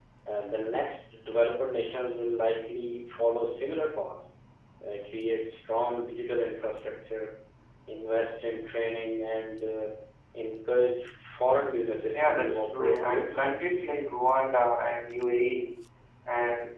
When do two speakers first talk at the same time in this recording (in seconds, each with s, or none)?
12.1 s